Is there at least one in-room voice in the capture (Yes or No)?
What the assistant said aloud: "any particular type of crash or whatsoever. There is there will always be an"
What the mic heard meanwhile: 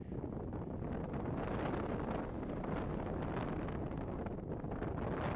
No